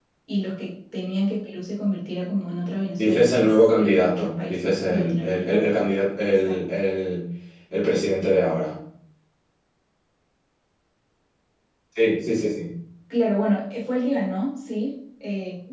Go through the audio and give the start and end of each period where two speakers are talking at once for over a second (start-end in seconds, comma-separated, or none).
3.0-5.6